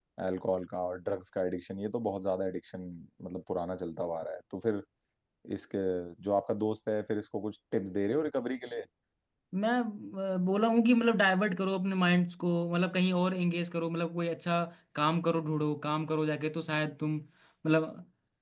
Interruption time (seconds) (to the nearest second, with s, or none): none